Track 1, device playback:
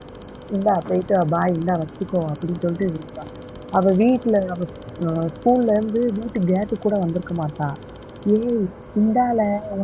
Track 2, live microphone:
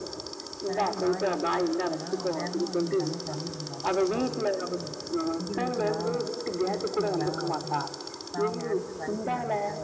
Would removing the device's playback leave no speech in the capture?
No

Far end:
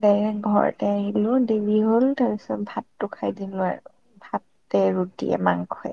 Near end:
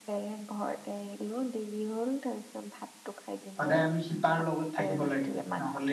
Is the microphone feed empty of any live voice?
No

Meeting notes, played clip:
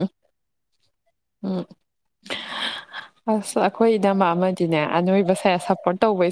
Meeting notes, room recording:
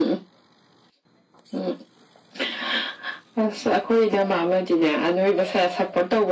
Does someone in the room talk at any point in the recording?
No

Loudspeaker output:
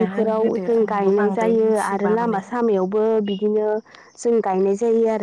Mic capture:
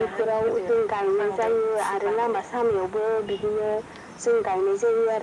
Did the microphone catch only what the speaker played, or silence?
Yes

